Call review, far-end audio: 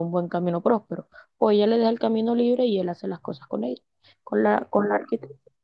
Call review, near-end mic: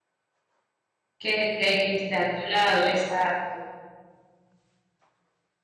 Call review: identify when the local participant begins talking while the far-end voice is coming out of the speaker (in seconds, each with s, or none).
1.2 s